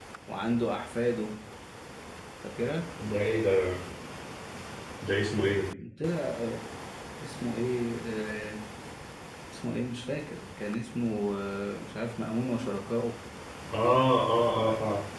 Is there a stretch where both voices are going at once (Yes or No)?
No